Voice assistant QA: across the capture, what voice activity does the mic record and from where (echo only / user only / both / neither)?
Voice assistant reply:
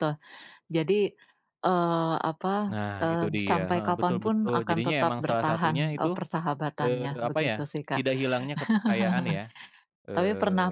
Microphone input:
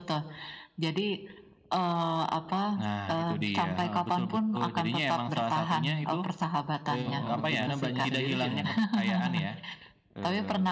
both